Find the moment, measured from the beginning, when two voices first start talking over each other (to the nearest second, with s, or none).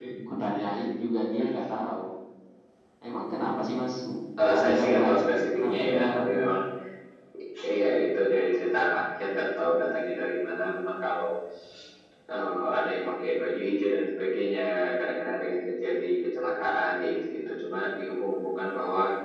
5 s